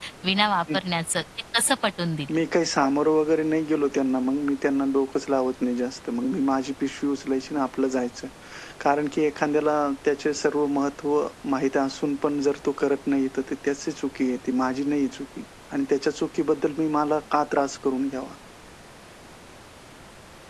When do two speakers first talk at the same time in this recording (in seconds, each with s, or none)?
none